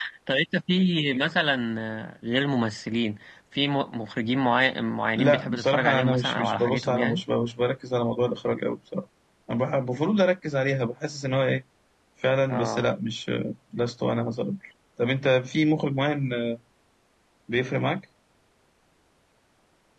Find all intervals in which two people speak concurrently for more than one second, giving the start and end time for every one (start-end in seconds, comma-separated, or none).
5.2-7.2